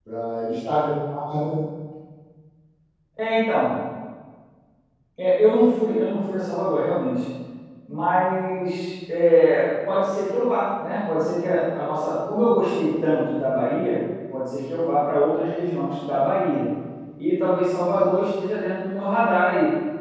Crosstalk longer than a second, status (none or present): none